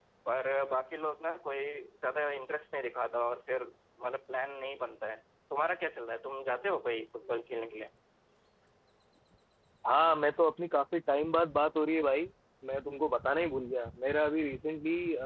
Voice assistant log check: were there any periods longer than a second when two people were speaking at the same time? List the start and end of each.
none

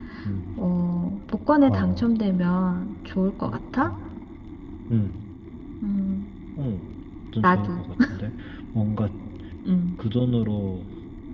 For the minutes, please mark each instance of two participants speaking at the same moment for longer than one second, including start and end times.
none

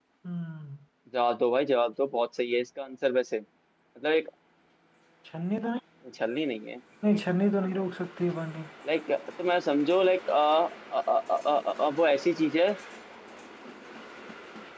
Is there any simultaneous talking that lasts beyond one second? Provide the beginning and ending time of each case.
none

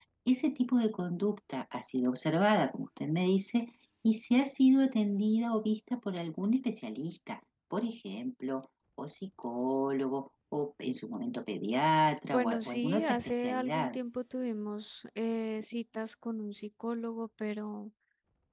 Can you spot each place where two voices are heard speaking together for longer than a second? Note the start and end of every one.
12.3-14.0

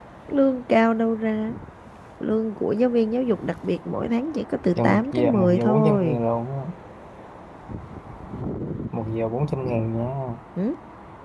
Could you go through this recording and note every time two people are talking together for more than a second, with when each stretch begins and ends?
4.8-6.2

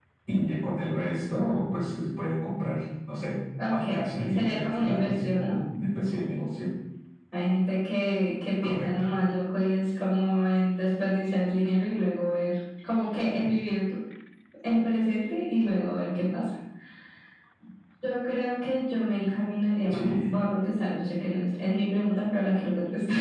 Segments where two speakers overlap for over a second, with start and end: 3.7-5.6

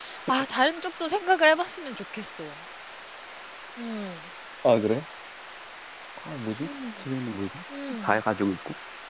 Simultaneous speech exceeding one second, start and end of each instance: none

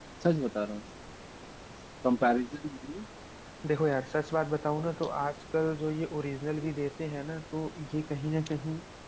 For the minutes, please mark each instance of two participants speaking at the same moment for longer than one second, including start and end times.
none

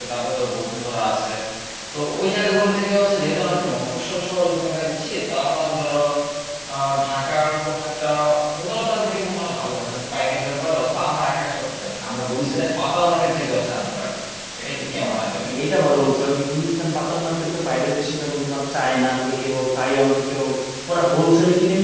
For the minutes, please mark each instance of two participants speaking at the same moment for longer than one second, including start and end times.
none

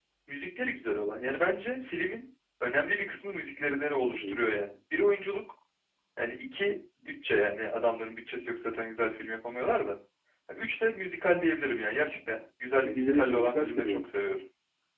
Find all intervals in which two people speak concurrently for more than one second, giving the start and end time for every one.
12.8-14.1

